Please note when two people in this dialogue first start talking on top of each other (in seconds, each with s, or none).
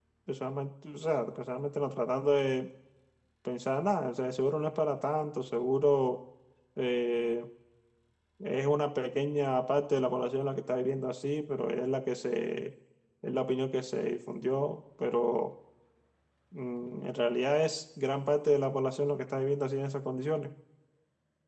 none